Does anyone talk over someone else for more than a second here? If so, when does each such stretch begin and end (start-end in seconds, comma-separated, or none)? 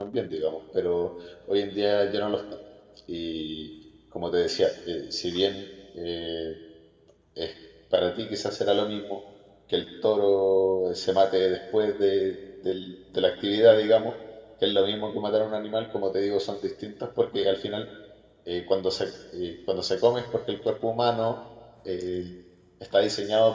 none